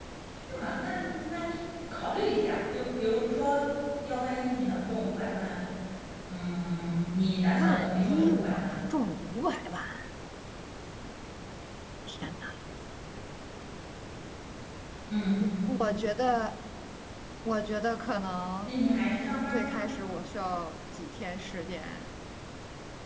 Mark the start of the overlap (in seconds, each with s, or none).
7.5 s